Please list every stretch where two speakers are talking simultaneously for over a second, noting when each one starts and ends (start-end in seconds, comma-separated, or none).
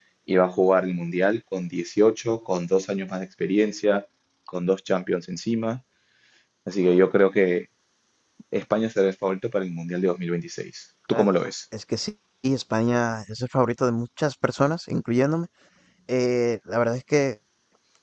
none